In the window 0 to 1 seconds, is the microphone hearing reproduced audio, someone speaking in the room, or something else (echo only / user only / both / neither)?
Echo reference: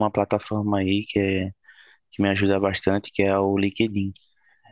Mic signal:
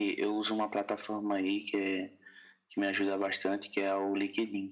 echo only